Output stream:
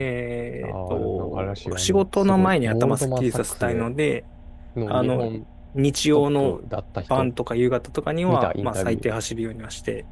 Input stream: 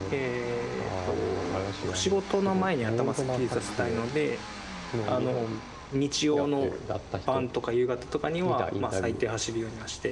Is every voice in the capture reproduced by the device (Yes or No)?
No